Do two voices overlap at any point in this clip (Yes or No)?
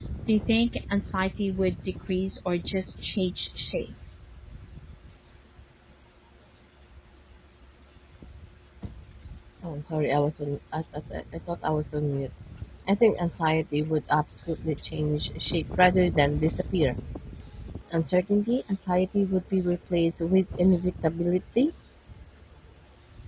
No